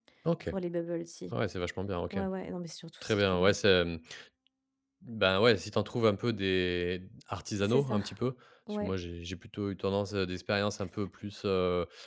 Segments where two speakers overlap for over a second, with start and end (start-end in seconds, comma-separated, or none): none